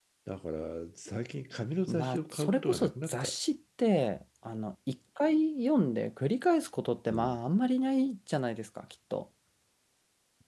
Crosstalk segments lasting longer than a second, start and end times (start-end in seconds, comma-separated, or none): 1.9-3.3